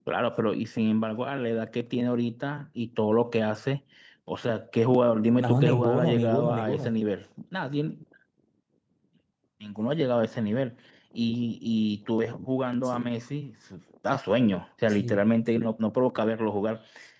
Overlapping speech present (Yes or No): Yes